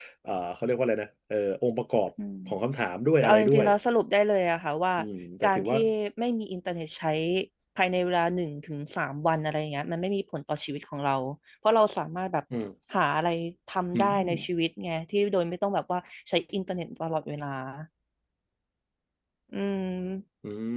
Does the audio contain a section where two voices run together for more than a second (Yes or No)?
No